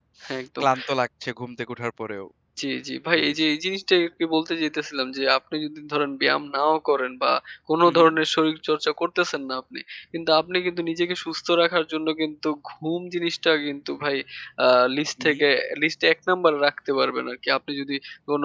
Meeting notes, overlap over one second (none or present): none